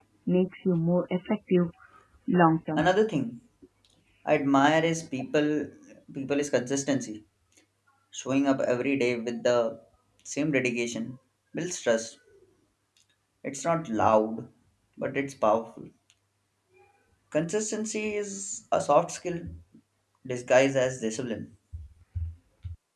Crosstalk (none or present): none